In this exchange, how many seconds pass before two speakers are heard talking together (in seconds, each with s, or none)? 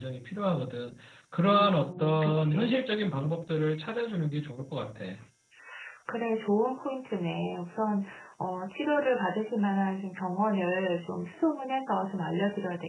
1.5 s